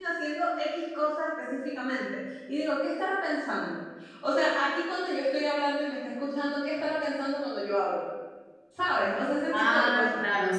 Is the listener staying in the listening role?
No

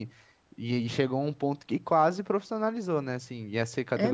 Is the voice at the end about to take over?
No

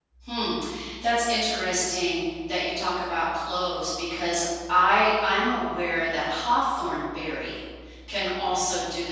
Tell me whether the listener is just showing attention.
Yes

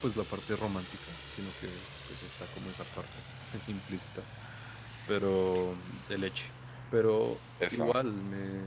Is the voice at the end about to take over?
No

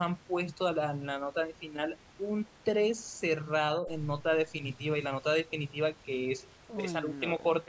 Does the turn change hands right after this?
No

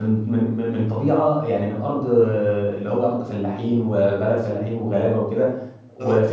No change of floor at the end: Yes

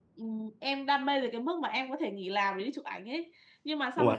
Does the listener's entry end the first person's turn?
No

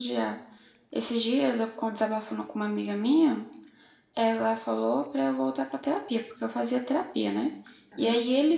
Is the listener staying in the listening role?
Yes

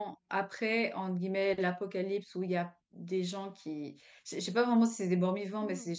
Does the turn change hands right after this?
No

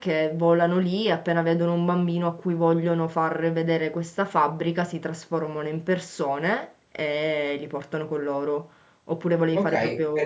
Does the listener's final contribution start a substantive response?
Yes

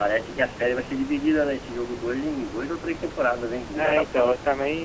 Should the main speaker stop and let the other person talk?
Yes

